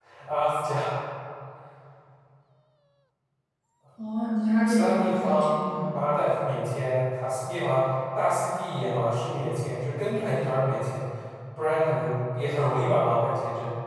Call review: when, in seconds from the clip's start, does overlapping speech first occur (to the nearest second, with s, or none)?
5 s